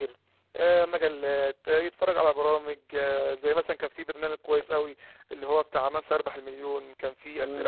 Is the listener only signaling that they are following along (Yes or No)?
No